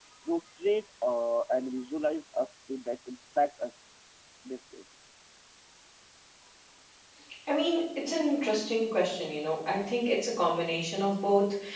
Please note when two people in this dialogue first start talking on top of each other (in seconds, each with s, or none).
none